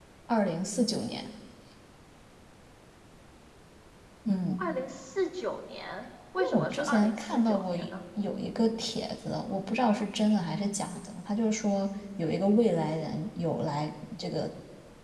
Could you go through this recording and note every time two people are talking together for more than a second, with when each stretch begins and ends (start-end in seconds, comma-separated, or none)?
6.4-7.9